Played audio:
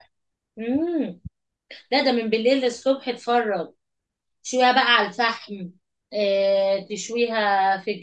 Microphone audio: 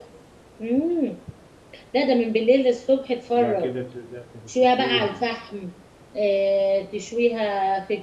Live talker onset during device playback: 3 s

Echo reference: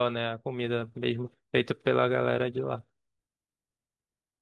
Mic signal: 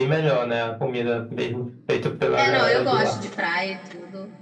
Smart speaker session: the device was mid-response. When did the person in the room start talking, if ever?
2 s

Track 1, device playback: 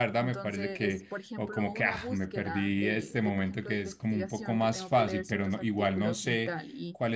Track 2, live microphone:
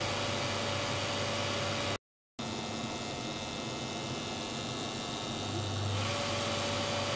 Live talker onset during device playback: none

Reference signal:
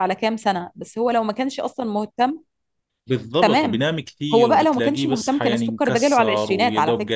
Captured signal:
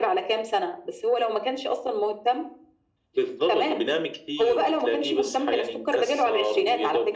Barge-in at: none

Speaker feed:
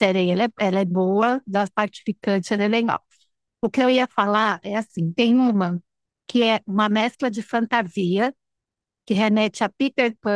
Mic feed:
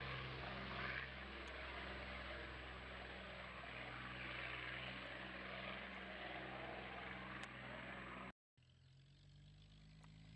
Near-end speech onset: none

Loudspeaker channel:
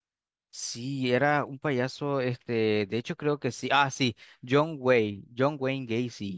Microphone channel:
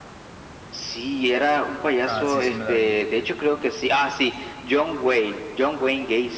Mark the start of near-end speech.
2 s

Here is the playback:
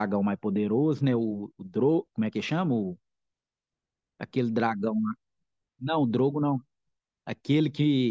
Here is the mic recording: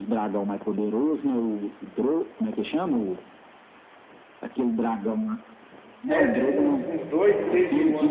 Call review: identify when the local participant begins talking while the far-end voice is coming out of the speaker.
6 s

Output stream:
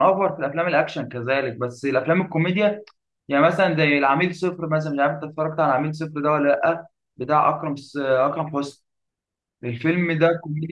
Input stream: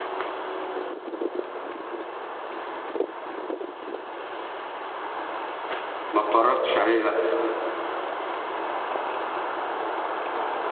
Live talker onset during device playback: 6 s

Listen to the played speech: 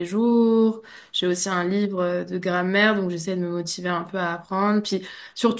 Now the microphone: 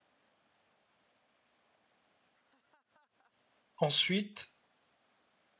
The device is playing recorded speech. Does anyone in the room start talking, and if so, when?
4 s

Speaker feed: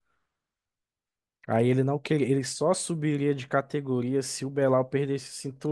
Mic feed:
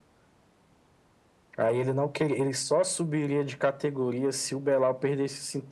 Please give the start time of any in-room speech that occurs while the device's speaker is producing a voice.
none

